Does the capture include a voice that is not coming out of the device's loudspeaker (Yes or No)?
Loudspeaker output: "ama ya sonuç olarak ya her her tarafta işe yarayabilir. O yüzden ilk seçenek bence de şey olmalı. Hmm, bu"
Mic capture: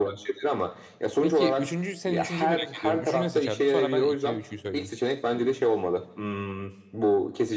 Yes